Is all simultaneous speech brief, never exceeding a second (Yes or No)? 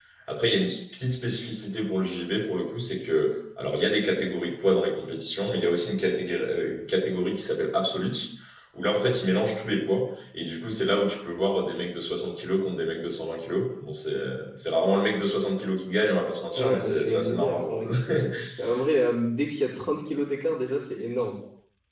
No